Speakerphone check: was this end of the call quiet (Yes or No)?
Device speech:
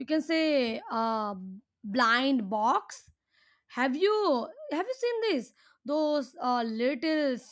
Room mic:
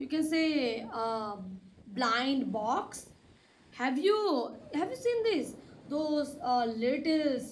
Yes